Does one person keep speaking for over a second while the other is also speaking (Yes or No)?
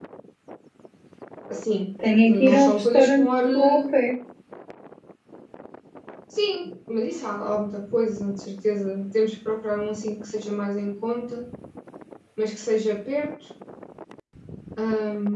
Yes